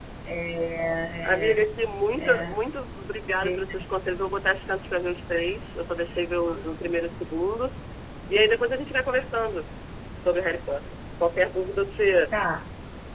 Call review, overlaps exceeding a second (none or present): none